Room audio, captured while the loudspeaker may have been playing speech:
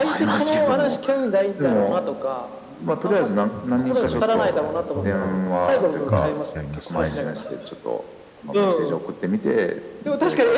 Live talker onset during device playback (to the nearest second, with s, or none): 4 s